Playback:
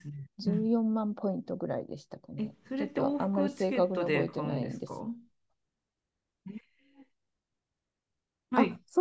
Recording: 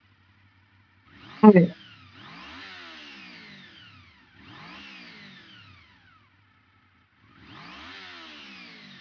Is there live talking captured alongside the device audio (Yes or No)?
Yes